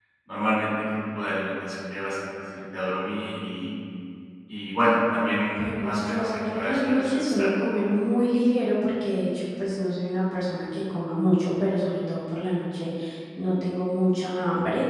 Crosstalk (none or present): present